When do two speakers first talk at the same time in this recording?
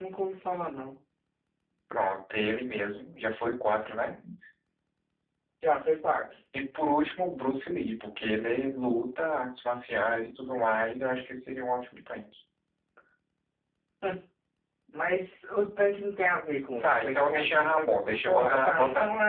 16.8 s

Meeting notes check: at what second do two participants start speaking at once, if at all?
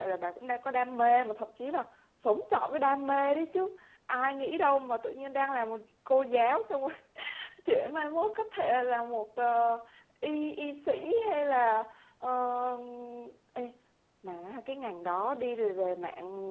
none

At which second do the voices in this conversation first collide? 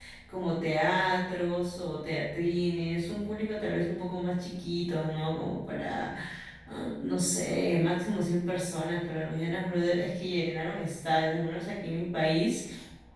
none

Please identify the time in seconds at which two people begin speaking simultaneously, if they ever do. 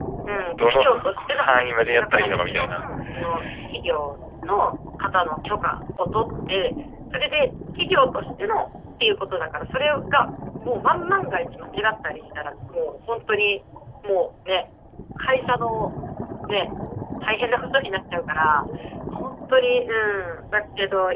0.6 s

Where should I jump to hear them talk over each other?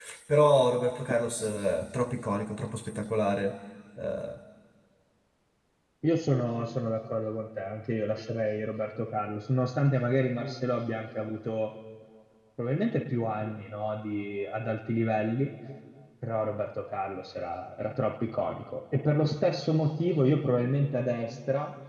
none

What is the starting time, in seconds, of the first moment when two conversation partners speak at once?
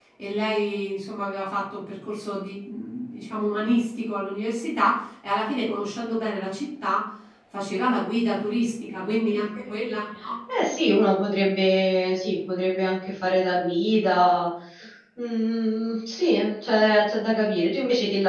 none

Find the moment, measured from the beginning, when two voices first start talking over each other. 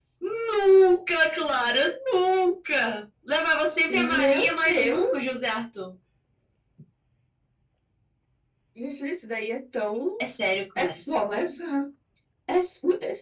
3.9 s

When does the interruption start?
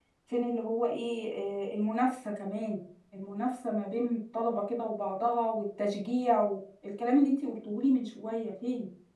none

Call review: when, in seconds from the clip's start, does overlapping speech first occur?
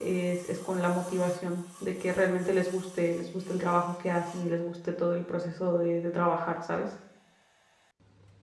none

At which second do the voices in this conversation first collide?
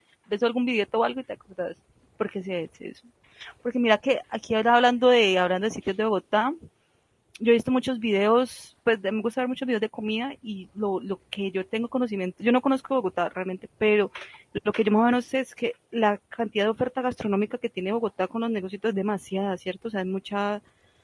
none

